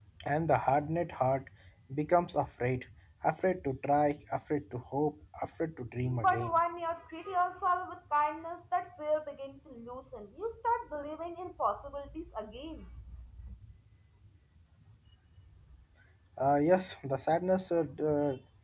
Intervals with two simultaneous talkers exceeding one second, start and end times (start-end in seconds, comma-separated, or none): none